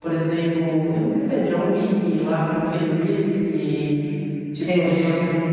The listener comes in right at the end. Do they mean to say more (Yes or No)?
No